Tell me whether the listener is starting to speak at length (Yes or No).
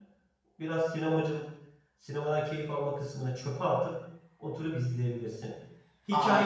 No